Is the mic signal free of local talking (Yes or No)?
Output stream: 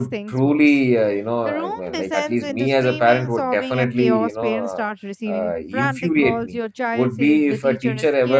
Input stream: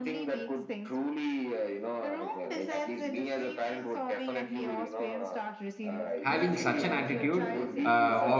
No